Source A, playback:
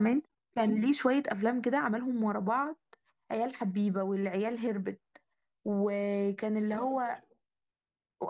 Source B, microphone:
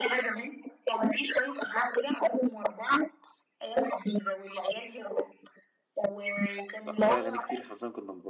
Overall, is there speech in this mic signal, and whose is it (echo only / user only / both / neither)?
both